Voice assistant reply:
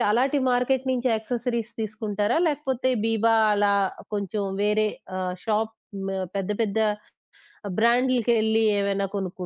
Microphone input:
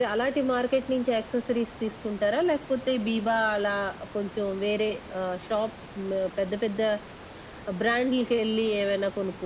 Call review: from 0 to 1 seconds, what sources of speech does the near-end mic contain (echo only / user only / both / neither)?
echo only